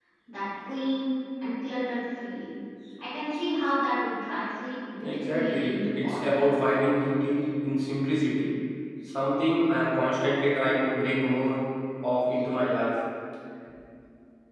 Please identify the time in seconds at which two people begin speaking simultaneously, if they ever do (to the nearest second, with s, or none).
5 s